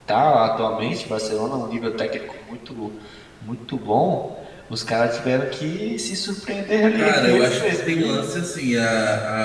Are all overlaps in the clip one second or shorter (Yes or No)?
No